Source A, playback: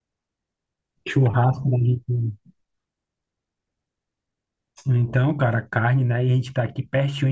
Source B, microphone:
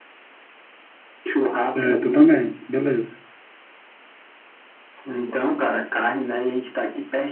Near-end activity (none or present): present